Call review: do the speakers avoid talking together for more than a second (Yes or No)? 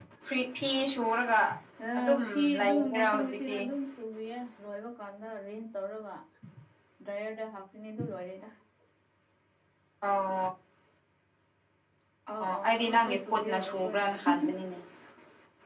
No